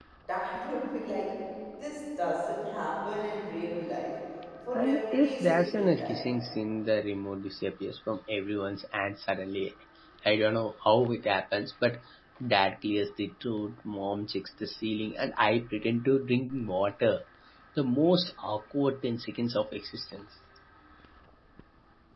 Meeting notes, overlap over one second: present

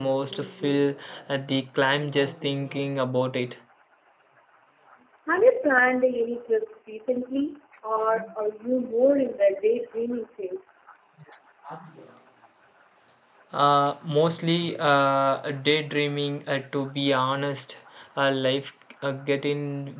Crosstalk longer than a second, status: none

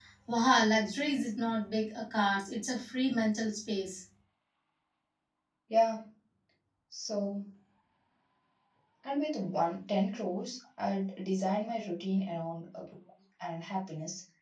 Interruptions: none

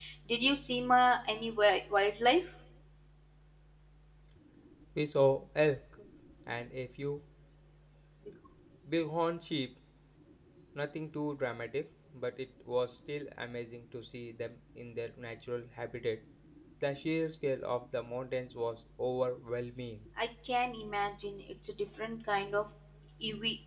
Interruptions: none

